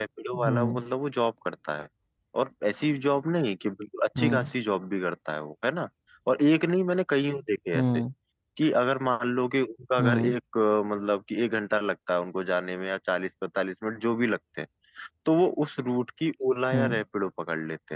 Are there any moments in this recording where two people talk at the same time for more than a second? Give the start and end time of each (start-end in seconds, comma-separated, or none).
none